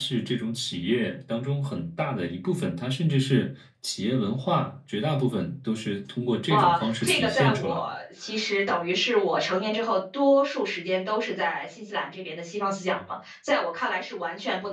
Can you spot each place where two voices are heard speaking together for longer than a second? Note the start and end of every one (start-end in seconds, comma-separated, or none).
6.5-7.9